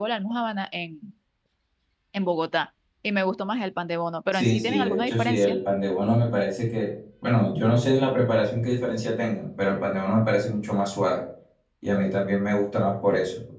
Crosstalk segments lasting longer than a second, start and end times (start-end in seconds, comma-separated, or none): 4.3-5.6